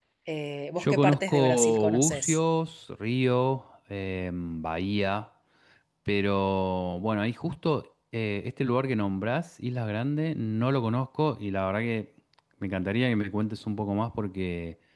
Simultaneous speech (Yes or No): Yes